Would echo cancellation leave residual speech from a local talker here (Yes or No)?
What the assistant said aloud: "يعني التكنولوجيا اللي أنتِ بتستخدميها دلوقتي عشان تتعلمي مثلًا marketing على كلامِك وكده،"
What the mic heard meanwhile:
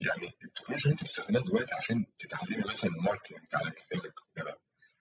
No